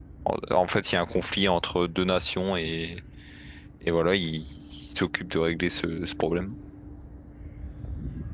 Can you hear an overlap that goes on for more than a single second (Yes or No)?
No